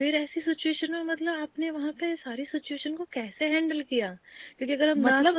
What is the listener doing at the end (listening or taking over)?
listening